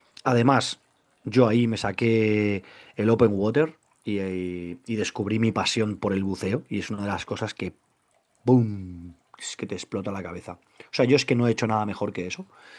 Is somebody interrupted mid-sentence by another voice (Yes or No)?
No